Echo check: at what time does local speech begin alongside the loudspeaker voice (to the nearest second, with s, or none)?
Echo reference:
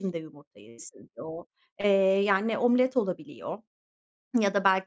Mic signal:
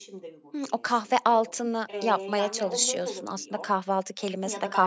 1 s